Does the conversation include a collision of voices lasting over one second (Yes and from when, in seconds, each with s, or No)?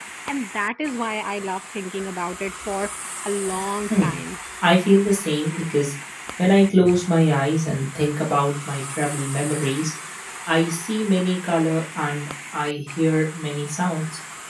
No